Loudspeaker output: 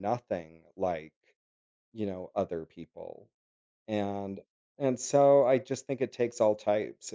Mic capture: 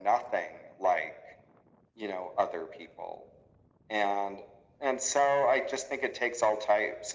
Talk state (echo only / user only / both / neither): echo only